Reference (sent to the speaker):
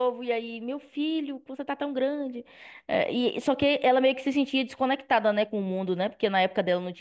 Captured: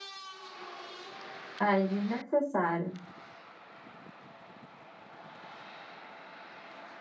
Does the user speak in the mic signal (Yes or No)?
Yes